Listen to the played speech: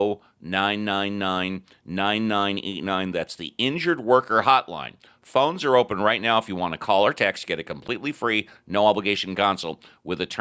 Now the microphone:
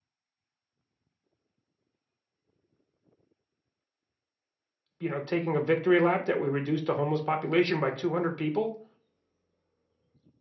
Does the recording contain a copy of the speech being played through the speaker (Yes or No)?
No